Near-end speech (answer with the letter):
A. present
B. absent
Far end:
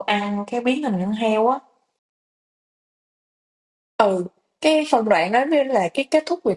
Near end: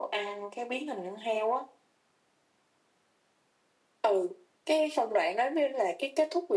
B